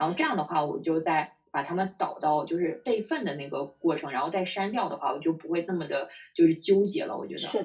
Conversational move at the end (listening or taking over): taking over